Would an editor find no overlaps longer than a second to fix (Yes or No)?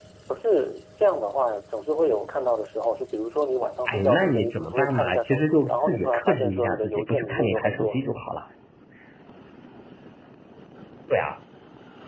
No